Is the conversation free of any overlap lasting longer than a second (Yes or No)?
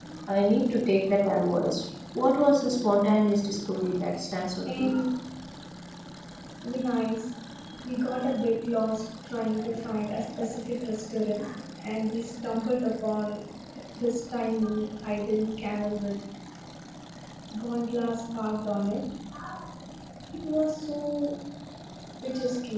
Yes